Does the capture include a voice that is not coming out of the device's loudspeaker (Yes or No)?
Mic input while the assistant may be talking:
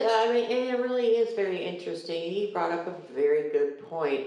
No